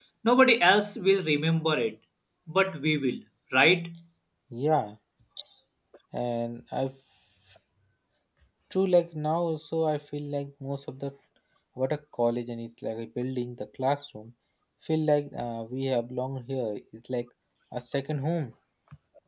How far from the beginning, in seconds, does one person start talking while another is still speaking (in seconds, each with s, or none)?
none